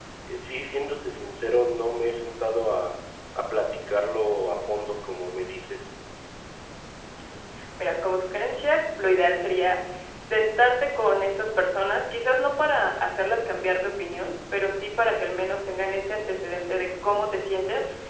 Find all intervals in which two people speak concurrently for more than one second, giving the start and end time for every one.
none

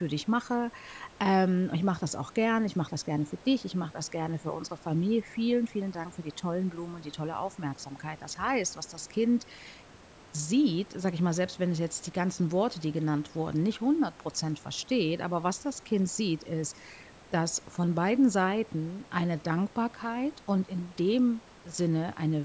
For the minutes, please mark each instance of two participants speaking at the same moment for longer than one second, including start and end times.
none

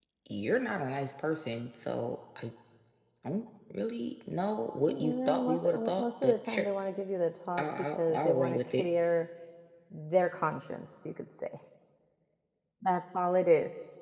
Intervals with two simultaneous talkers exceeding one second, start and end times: 4.8-6.7, 7.6-8.9

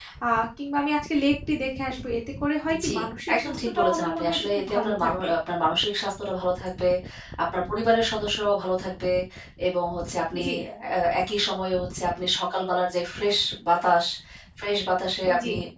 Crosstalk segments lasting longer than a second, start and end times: 3.3-5.3

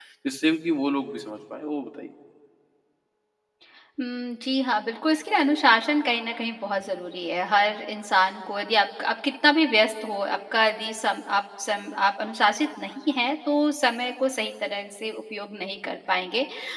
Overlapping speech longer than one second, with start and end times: none

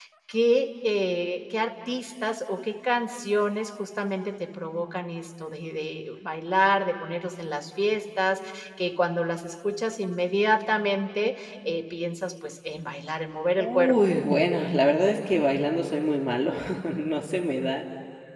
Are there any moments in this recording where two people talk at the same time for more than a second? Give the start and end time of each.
none

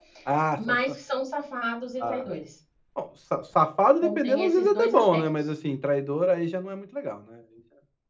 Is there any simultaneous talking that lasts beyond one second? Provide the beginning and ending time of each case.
4.0-5.5

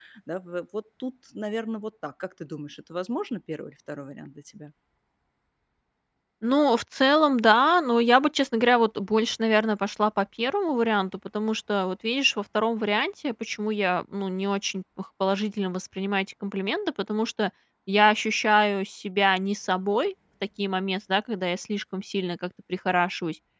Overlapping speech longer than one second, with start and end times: none

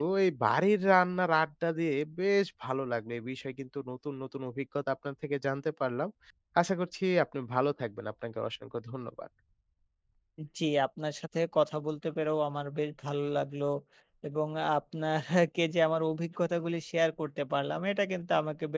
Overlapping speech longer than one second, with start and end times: none

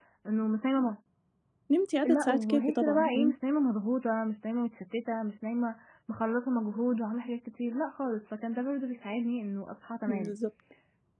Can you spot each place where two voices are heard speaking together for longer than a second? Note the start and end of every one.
2.0-3.3

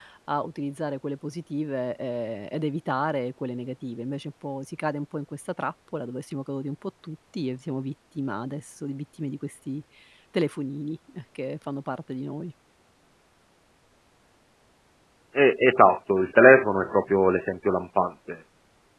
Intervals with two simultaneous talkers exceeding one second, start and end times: none

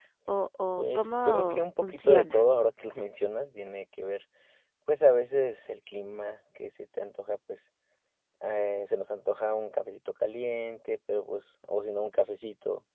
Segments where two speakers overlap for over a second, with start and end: 0.8-2.4

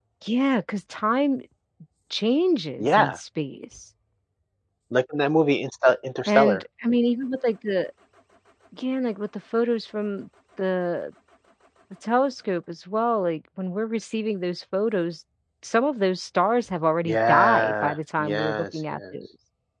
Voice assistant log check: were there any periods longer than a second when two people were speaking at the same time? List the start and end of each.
17.0-19.1

